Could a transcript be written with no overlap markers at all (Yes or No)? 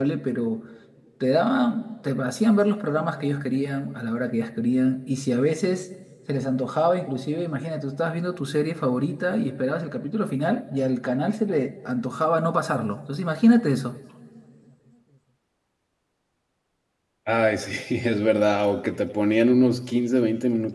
Yes